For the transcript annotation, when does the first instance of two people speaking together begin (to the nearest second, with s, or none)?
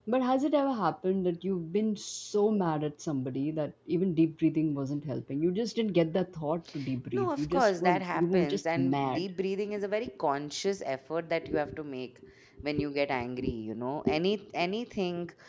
7 s